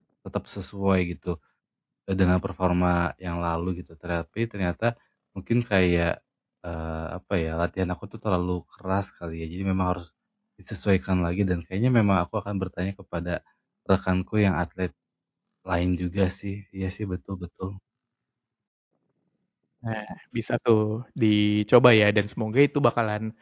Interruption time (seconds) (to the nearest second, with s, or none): none